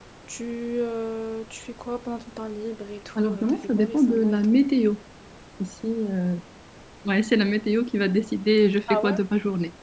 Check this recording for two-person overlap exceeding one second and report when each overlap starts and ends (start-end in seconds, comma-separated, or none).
3.1-4.6